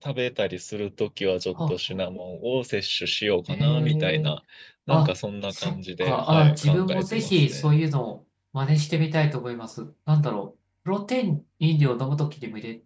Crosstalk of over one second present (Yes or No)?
Yes